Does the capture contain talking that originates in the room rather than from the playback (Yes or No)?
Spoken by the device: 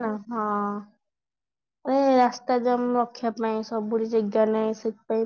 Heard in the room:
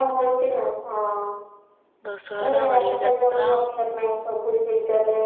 Yes